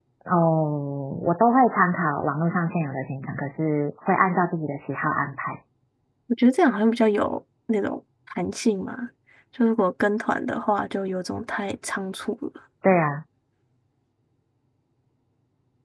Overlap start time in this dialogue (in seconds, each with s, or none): none